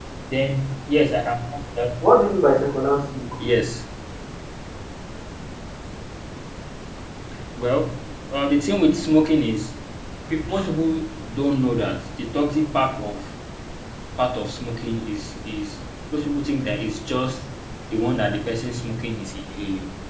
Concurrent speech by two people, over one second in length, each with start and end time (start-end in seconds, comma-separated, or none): none